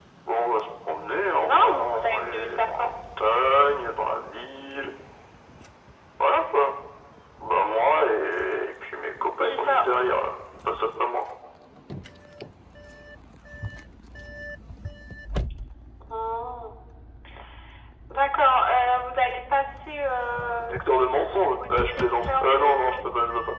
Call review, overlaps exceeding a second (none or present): present